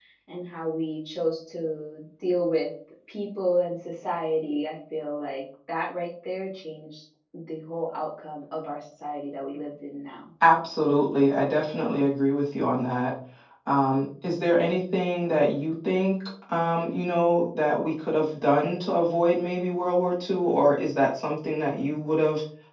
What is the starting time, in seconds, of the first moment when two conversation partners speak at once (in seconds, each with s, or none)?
none